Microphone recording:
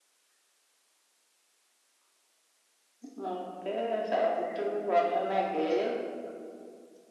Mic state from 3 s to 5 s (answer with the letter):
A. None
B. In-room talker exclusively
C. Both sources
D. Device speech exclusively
D